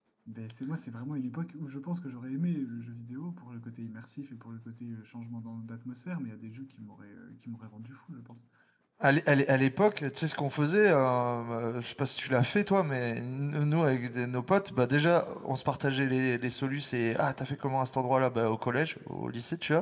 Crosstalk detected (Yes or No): No